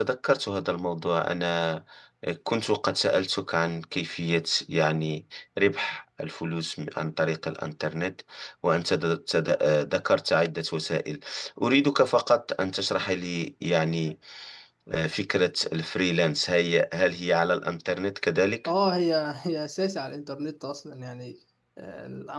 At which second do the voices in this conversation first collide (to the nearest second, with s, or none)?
none